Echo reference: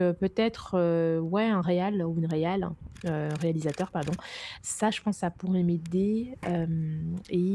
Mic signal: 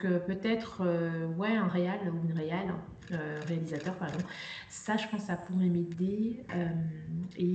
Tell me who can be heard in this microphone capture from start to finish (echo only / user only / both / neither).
echo only